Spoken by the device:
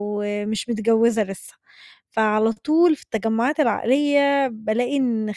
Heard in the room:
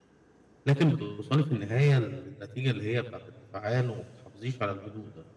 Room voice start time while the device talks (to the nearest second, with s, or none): 1 s